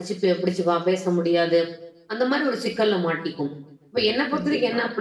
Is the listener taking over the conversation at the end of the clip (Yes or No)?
No